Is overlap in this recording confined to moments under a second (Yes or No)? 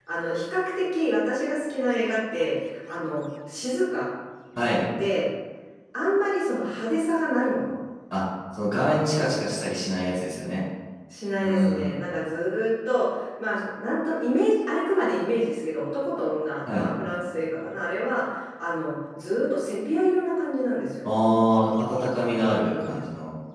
Yes